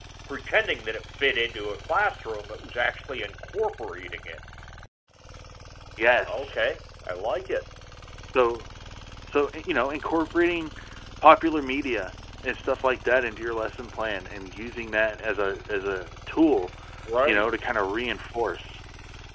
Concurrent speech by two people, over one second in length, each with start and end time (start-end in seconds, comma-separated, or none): none